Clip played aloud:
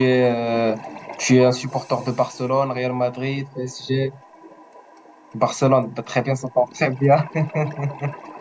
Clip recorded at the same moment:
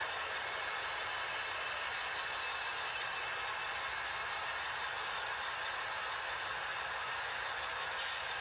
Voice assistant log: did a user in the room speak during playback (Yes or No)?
No